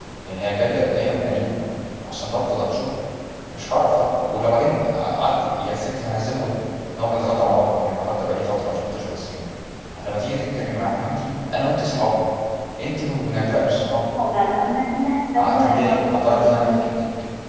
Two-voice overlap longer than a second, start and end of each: 15.4-16.8

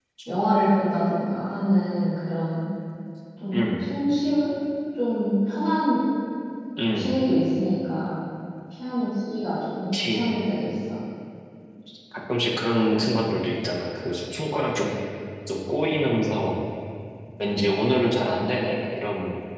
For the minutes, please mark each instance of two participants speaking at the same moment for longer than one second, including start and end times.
none

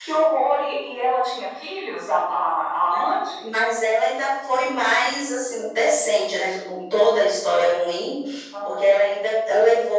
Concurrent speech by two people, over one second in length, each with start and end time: none

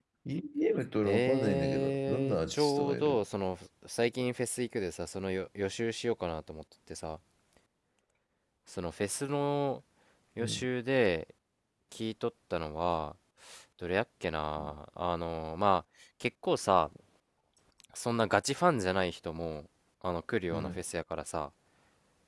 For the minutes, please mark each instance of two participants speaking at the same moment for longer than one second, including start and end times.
1.0-3.2

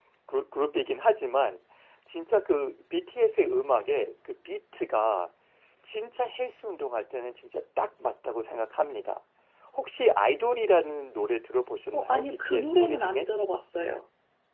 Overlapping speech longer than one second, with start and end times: 11.9-13.3

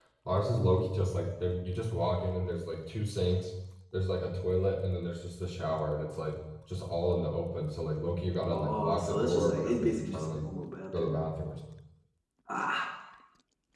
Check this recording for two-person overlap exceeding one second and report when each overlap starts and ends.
8.5-10.4

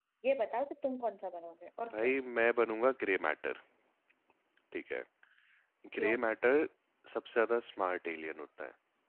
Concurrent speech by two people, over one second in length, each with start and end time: none

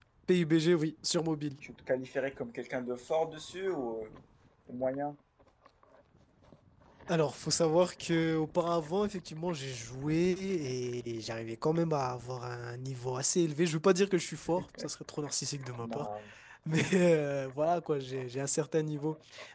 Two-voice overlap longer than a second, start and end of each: none

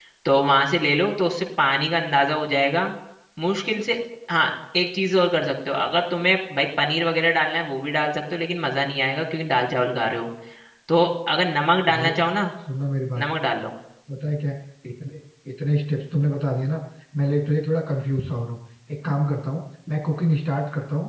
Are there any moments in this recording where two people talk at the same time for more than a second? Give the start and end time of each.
none

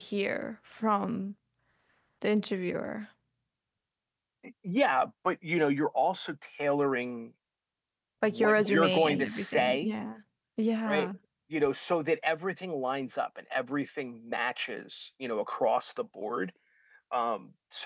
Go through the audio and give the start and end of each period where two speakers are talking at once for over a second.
8.2-9.9

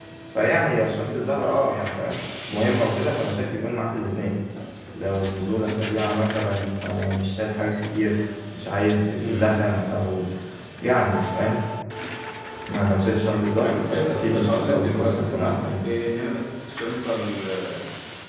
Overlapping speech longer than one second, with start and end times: 13.6-15.8

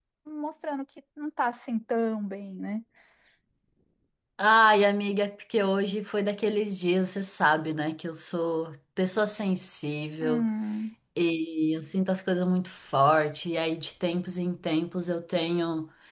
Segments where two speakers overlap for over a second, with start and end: none

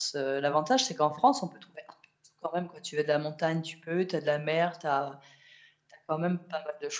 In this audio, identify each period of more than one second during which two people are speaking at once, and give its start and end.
none

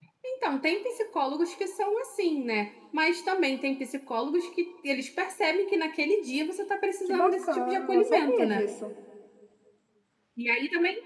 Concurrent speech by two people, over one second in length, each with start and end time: 7.1-8.7

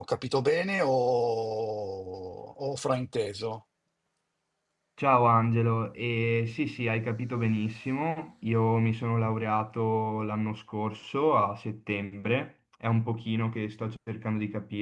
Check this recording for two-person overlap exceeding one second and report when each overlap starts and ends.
none

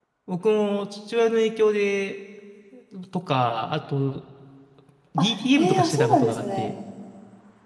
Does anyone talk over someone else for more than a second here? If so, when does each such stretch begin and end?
5.2-6.7

